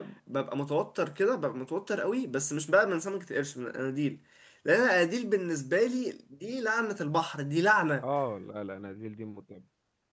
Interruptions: none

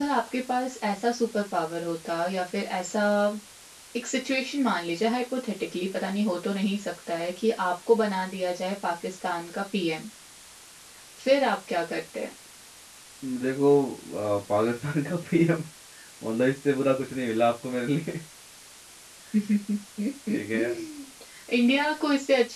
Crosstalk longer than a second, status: none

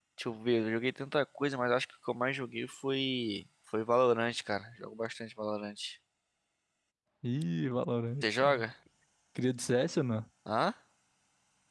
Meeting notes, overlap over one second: none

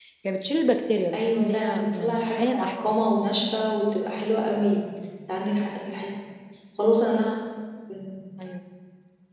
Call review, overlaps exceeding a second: present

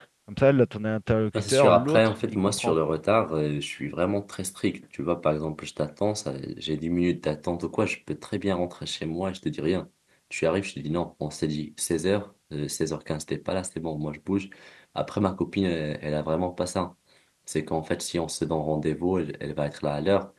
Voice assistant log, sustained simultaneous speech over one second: present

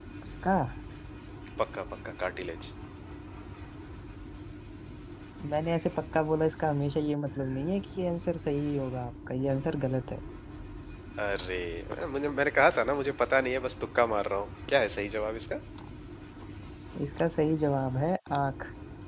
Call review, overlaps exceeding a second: none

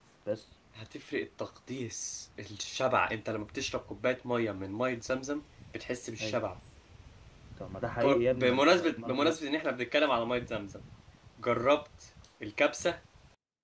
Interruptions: present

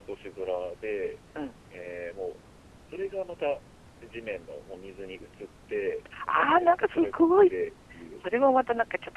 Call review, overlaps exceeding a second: present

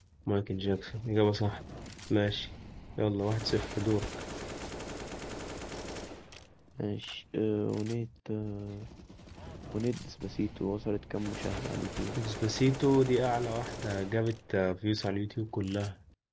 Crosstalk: none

